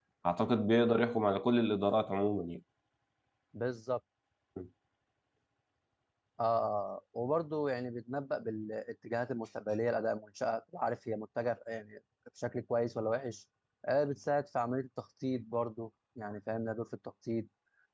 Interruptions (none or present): none